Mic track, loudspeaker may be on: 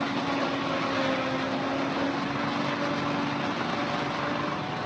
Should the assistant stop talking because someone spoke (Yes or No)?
No